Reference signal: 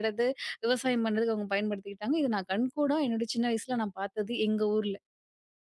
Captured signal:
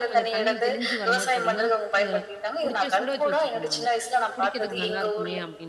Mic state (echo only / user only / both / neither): both